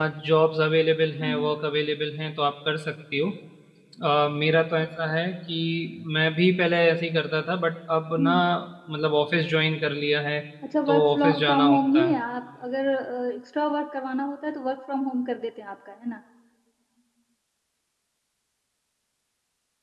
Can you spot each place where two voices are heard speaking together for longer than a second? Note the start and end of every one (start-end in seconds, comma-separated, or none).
10.9-12.2